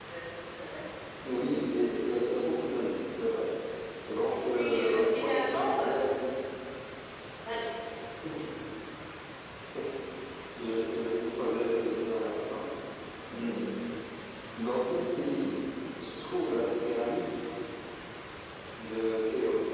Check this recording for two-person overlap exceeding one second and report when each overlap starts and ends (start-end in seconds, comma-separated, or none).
4.3-6.1